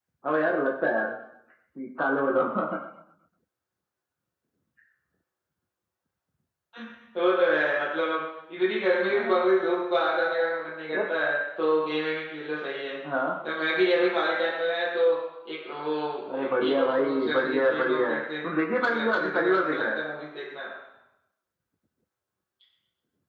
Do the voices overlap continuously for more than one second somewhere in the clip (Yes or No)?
Yes